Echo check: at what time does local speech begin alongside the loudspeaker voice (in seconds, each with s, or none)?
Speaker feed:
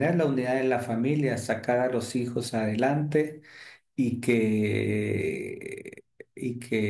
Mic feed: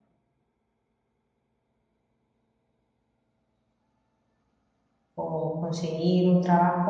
5.2 s